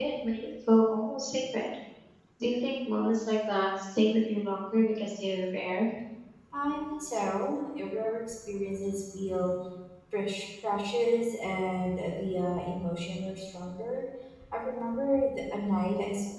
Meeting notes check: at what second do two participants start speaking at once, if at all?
none

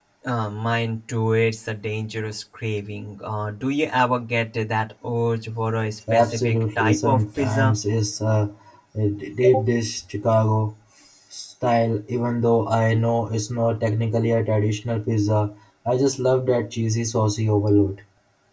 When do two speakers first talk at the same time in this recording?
6.1 s

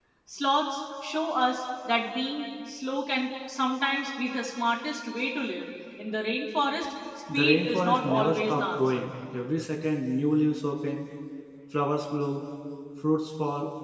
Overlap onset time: 7.3 s

